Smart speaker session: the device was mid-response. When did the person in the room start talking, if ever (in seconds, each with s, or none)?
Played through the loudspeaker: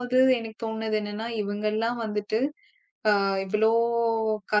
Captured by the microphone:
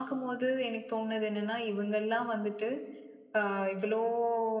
none